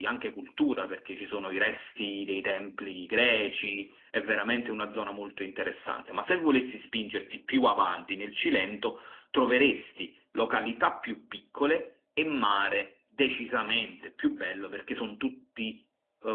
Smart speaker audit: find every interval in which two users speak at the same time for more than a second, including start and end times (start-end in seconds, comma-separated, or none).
none